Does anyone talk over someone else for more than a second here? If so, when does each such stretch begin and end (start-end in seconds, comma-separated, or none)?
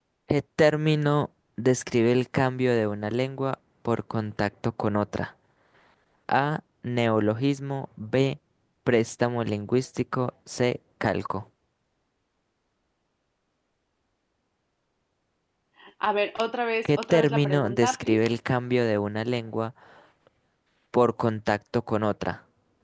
16.8-18.2